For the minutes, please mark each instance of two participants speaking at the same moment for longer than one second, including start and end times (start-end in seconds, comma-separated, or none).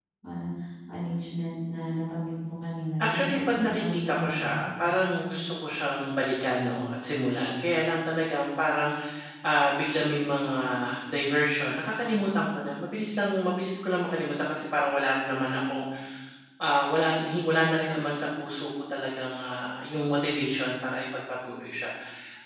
3.0-4.6